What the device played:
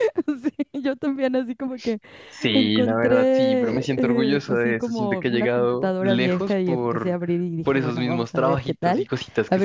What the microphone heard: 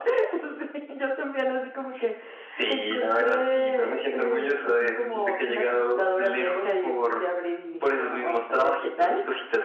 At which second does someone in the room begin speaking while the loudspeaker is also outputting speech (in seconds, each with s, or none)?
none